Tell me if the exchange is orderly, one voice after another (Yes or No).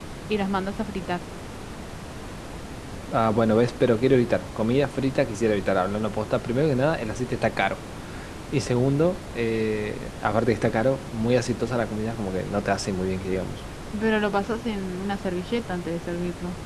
Yes